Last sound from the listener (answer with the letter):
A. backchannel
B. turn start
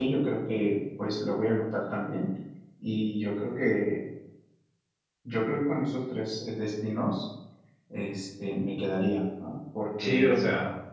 B